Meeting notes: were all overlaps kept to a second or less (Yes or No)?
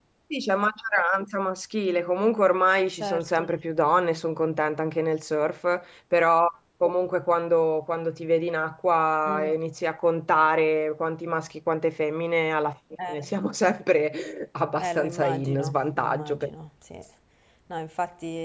No